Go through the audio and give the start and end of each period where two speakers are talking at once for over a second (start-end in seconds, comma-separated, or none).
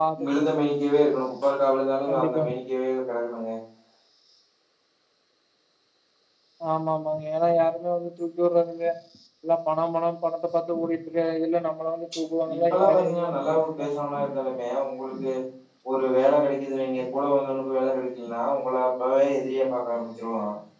12.6-13.9